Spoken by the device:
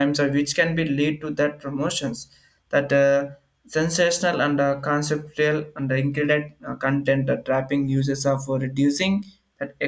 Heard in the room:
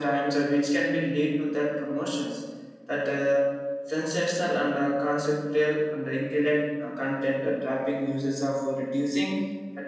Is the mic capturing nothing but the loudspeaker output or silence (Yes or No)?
Yes